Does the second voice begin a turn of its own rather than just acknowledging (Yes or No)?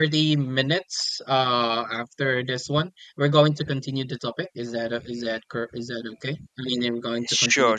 Yes